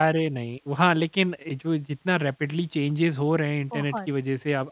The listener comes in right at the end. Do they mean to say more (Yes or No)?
No